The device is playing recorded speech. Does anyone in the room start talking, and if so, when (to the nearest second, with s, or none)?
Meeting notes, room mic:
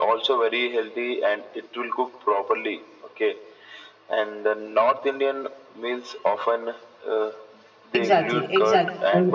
8 s